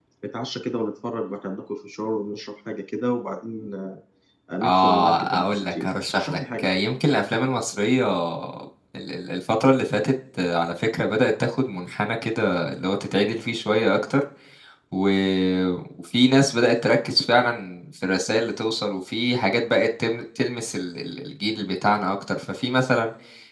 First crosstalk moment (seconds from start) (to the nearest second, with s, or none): 5 s